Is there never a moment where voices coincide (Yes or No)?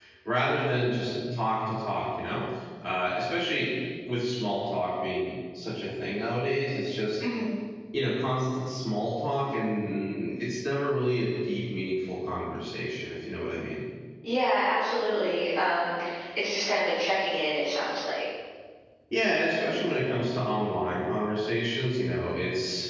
Yes